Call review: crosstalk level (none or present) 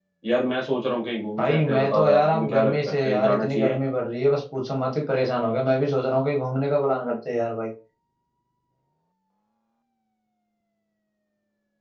present